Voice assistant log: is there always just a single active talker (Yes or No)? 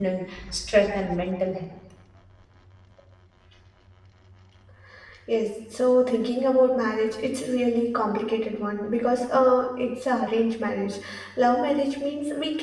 Yes